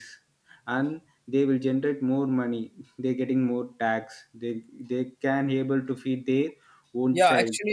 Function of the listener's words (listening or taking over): taking over